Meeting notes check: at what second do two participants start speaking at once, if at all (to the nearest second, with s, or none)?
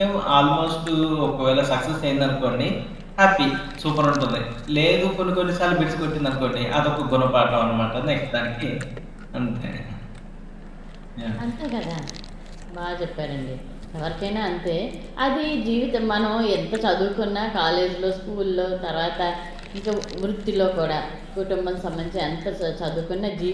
none